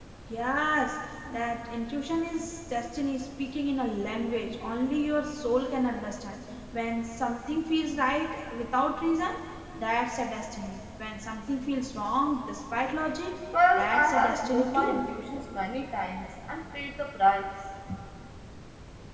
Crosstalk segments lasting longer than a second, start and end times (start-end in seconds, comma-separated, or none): 13.8-15.1